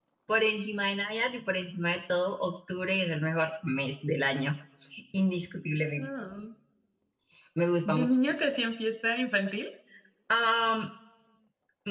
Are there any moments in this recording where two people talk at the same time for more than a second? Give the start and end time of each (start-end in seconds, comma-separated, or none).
none